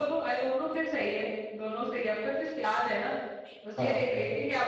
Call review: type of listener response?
listening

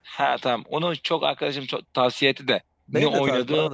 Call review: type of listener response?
taking over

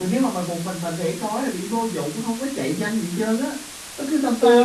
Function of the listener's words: taking over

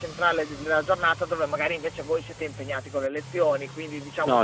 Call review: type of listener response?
taking over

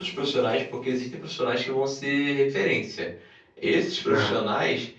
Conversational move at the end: listening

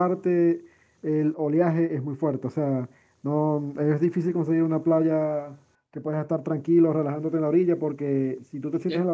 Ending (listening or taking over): listening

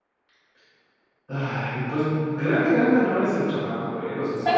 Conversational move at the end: listening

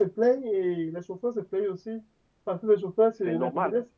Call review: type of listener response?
listening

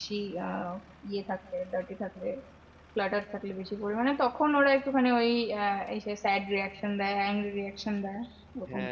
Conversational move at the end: taking over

